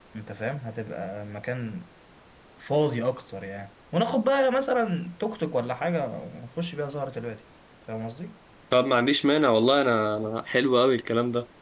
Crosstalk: none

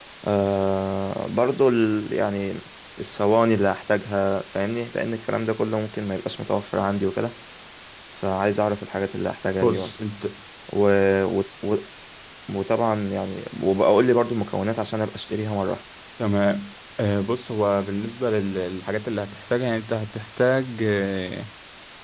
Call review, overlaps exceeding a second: none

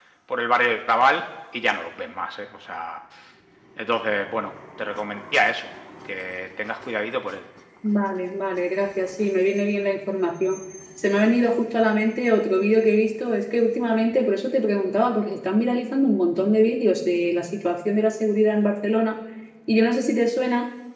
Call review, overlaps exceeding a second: none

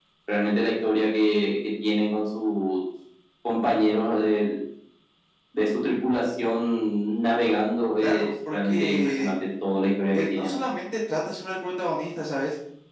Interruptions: present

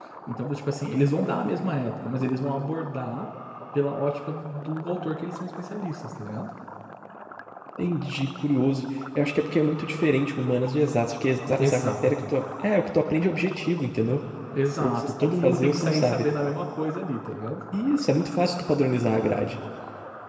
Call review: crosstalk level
present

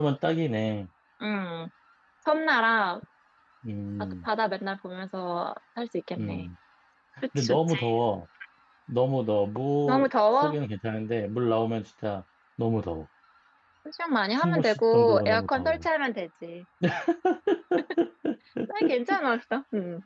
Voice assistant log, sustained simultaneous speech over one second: present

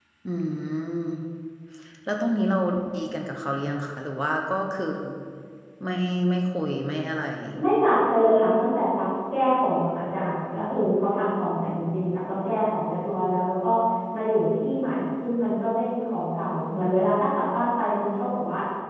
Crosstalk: none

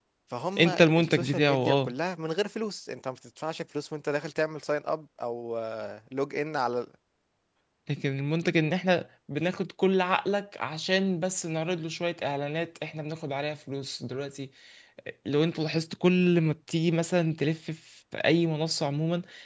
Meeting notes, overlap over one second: present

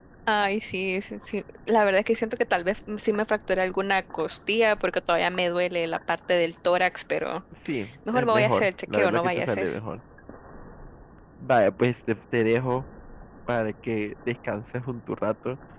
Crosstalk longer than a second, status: present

